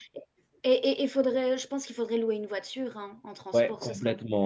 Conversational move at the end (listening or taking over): taking over